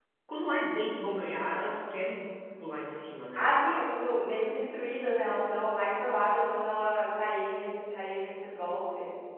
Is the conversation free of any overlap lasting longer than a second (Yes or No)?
Yes